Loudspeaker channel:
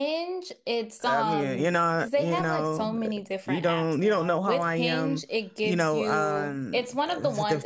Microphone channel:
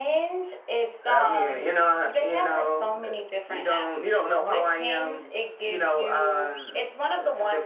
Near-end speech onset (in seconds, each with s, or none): none